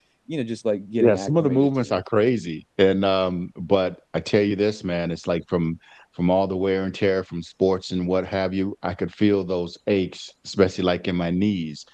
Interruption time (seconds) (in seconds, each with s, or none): 1.0 s